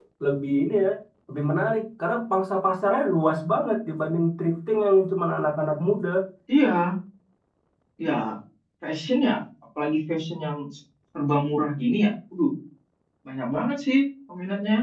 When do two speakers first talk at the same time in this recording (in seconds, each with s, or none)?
none